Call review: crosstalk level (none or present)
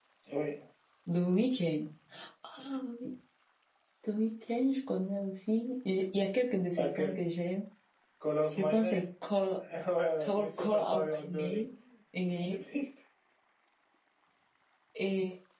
present